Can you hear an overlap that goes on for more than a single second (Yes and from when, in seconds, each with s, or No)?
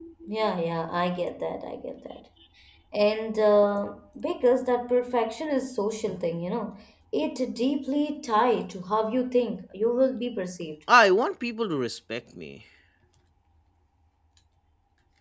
No